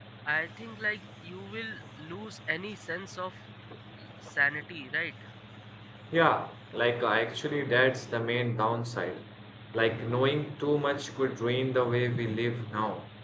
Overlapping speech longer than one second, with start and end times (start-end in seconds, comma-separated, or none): none